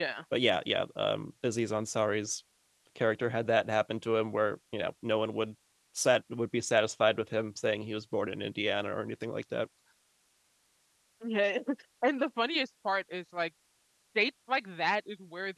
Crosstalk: none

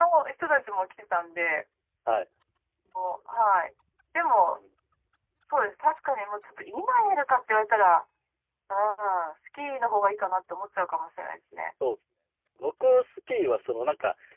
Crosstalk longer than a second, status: none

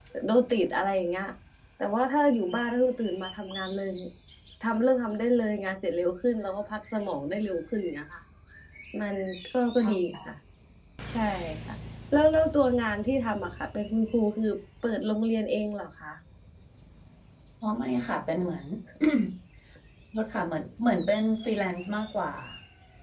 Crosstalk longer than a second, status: none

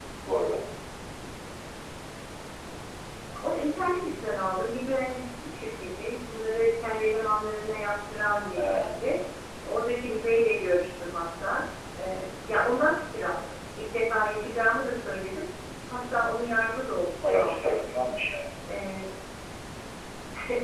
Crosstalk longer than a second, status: none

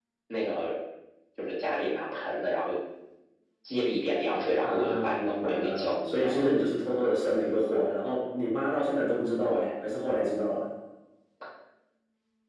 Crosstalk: present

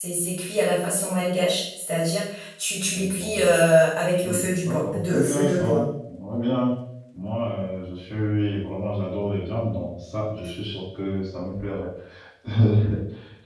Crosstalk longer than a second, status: present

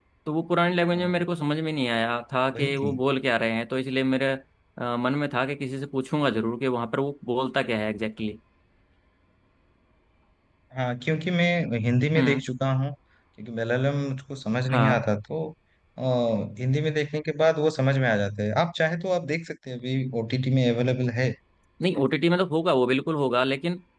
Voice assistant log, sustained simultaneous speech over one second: none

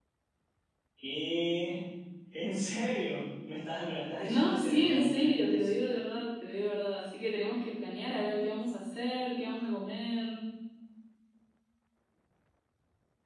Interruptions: present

